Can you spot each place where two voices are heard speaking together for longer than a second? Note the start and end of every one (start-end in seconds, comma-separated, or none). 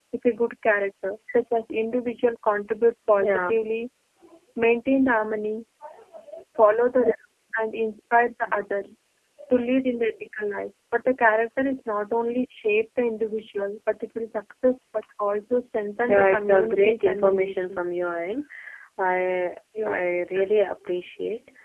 16.1-17.9